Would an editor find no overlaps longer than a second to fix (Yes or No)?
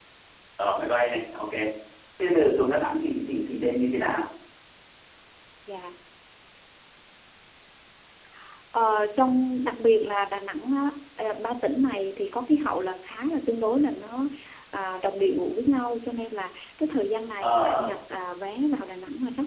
Yes